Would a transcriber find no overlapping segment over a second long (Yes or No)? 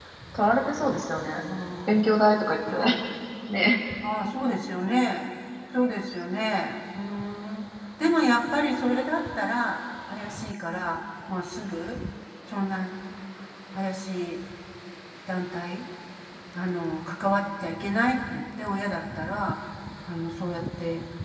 Yes